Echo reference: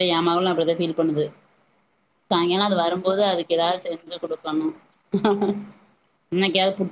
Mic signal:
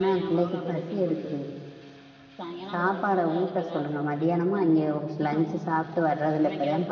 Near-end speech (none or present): present